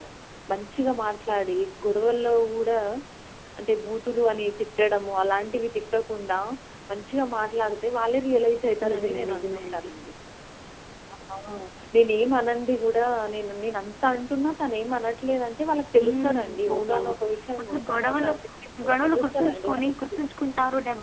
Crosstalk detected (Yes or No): Yes